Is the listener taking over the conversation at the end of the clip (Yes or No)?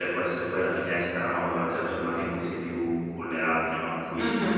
No